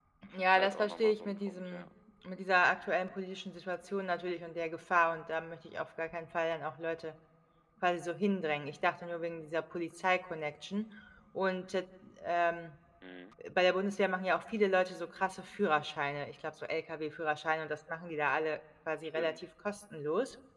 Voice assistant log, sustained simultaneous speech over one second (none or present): present